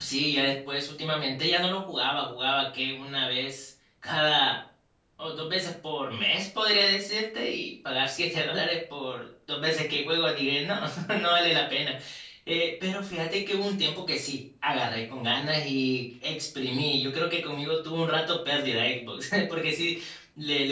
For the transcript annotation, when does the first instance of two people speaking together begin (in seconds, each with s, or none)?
none